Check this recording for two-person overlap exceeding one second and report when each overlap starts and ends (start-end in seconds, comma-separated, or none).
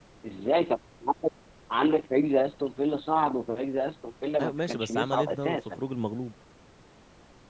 4.4-5.8